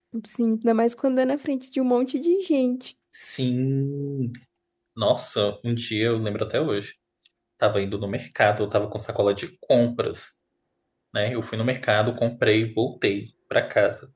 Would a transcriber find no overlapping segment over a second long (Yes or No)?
Yes